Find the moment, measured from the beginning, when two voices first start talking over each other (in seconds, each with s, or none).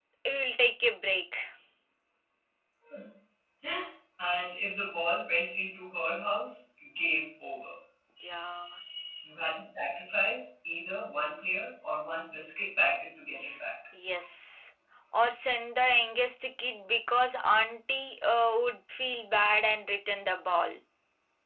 none